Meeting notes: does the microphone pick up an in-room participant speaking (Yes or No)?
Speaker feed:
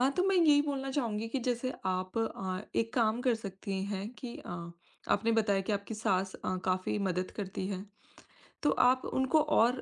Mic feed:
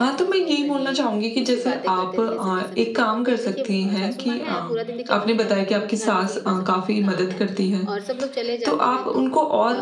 Yes